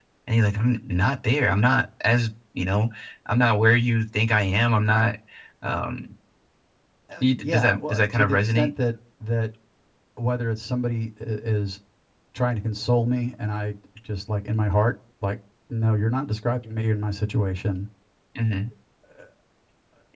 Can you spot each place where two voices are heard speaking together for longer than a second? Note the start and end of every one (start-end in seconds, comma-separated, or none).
7.4-8.7